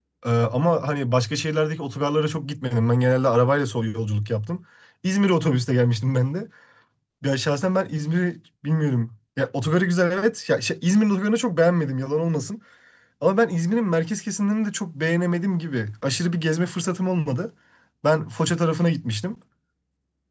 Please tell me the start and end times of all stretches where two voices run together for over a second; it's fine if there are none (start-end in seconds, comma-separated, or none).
none